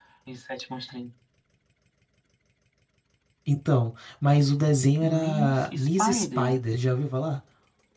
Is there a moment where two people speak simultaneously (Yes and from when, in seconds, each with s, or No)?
Yes, from 5.0 s